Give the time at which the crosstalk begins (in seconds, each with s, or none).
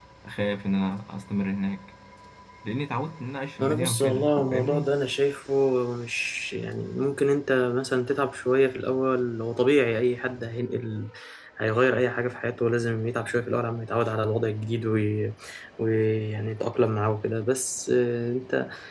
3.6 s